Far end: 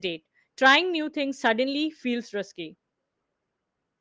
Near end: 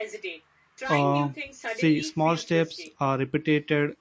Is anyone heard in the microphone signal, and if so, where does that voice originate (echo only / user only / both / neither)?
both